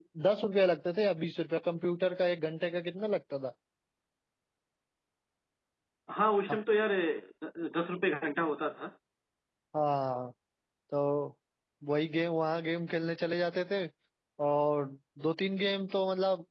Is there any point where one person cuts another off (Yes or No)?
No